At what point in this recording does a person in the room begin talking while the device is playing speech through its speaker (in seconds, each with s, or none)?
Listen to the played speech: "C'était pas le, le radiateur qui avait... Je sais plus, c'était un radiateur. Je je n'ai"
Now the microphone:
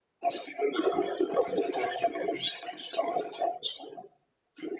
none